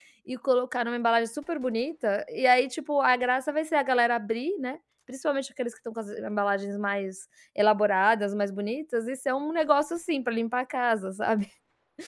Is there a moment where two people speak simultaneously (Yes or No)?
No